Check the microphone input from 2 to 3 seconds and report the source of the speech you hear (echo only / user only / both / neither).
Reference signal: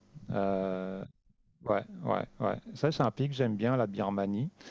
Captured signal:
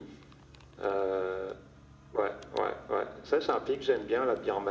echo only